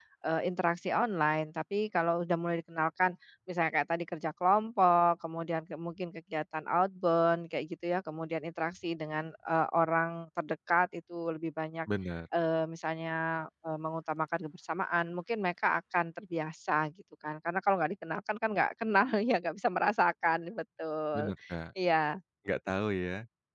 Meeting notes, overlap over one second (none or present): none